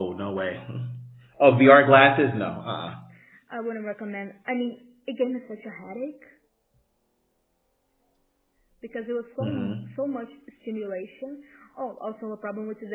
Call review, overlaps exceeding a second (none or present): none